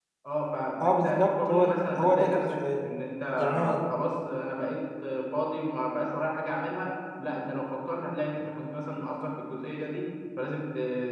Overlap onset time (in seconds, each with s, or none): 0.8 s